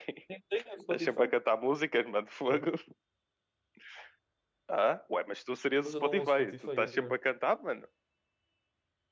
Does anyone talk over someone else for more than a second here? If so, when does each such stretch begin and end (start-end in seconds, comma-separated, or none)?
5.8-7.2